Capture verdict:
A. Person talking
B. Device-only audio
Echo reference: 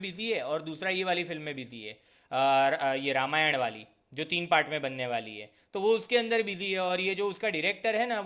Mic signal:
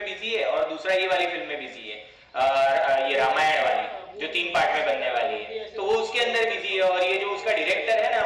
A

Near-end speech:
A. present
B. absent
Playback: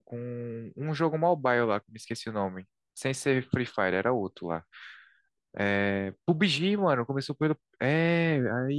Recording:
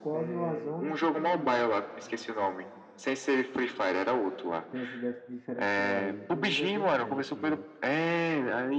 A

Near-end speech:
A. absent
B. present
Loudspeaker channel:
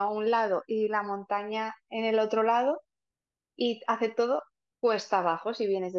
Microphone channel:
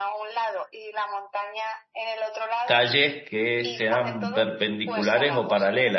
B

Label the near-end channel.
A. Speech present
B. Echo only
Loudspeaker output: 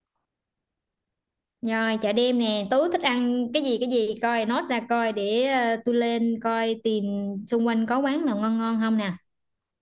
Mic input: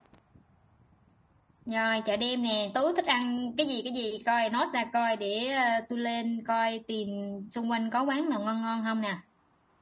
B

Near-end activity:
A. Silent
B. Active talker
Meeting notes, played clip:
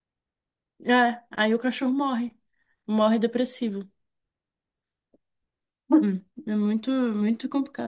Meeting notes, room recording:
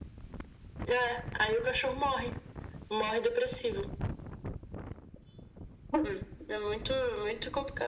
A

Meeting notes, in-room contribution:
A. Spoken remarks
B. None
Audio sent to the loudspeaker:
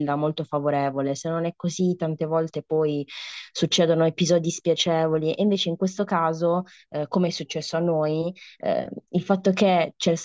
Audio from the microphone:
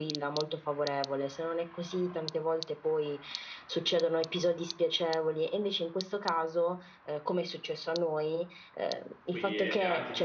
A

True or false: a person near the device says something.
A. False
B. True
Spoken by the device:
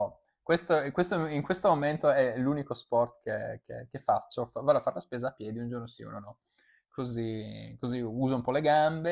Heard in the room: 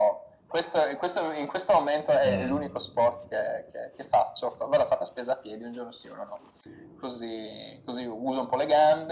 B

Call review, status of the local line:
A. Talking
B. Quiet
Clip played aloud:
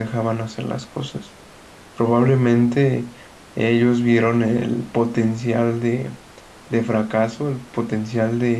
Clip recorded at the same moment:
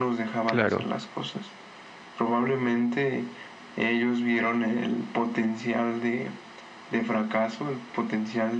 A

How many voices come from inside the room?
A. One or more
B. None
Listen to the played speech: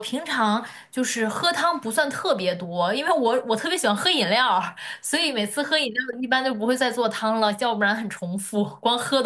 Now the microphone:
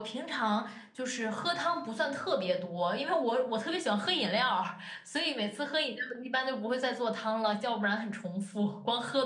B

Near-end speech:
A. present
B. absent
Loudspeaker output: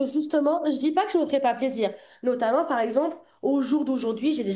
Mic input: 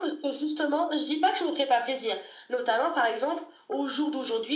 B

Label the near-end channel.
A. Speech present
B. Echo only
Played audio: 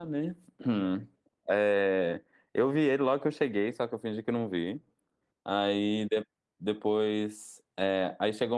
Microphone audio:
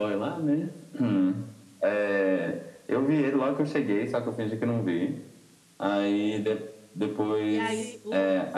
A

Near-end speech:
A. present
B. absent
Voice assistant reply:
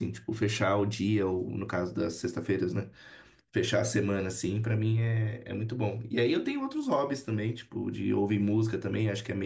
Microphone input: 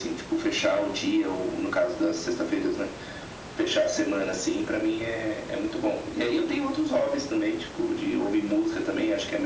B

